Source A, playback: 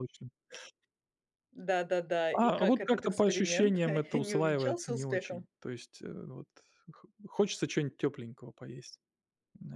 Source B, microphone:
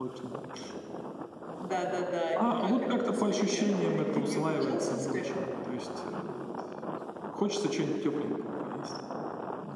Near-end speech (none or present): none